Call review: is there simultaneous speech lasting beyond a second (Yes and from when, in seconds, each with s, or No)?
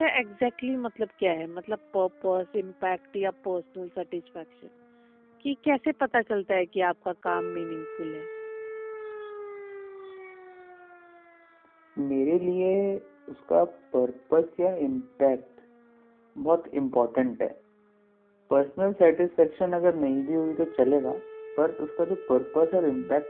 No